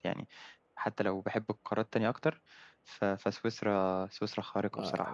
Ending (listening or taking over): taking over